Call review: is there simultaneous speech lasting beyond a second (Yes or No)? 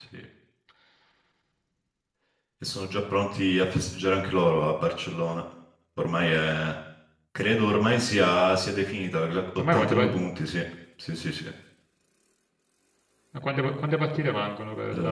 No